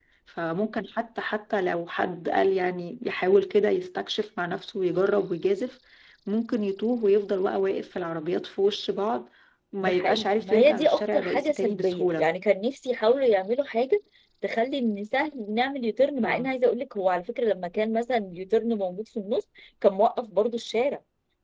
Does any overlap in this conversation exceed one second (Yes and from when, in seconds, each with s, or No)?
Yes, from 9.8 s